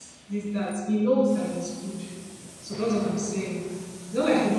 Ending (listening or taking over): listening